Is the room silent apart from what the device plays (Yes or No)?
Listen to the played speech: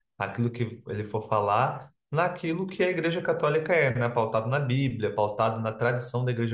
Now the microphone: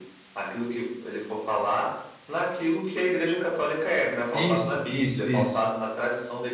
No